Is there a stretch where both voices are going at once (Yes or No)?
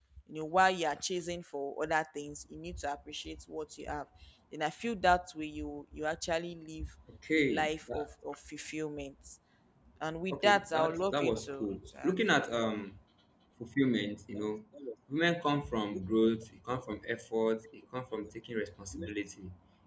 Yes